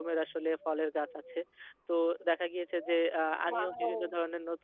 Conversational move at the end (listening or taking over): listening